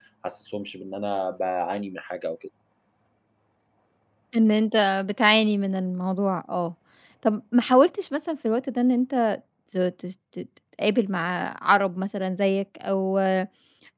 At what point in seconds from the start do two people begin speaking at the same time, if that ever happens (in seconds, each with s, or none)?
none